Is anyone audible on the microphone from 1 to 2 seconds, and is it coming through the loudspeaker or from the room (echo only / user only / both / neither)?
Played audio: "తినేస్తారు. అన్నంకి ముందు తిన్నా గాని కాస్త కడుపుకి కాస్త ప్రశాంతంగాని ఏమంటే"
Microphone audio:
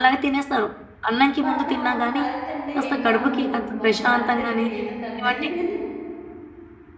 both